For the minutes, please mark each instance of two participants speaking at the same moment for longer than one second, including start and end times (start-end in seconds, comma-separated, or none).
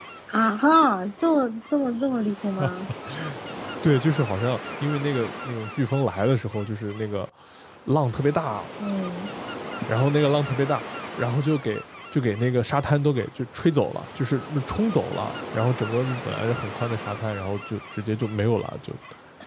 none